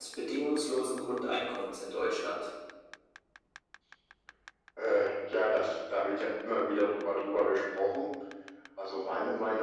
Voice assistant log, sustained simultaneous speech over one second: none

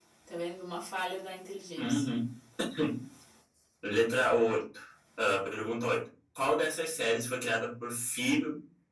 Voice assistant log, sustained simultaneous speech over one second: none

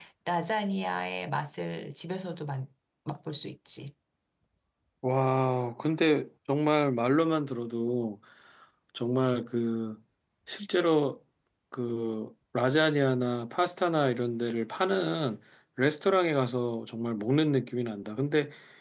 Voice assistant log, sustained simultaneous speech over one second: none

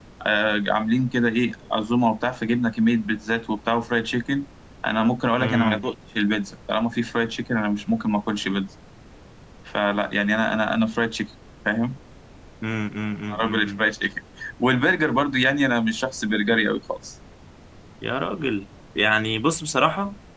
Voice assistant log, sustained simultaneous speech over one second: none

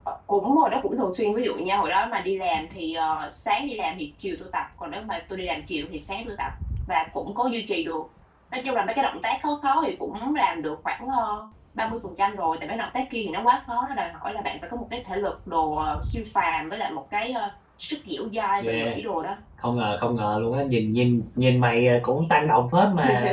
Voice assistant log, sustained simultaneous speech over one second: none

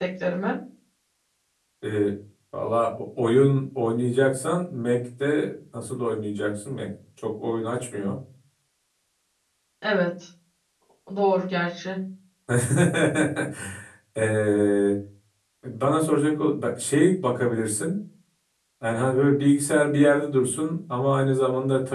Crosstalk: none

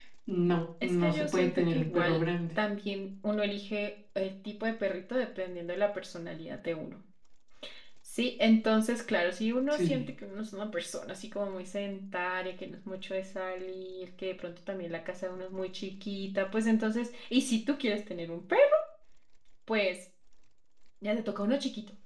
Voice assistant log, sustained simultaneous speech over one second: present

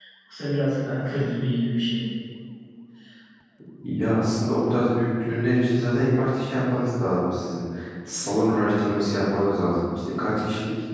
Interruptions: none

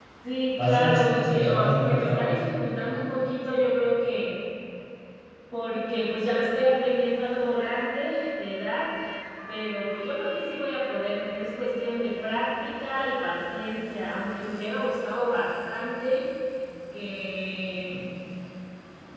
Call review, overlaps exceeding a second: present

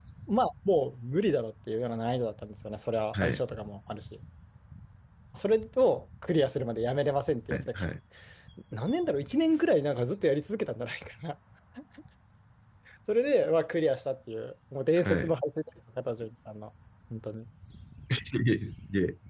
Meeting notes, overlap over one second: none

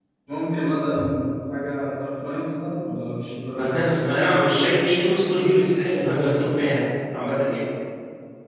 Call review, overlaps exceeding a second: none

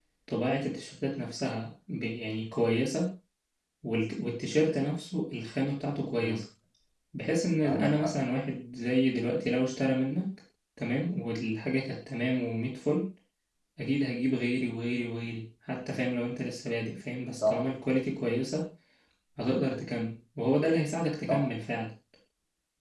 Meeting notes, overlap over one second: none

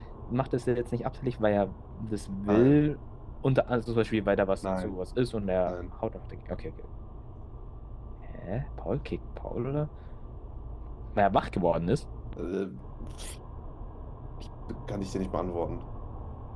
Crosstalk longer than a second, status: none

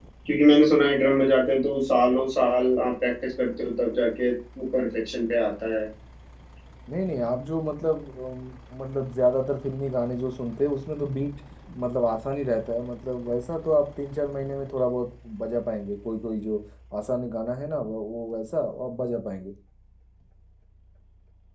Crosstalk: none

